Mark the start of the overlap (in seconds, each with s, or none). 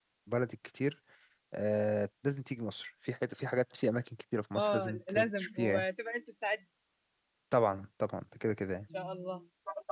4.5 s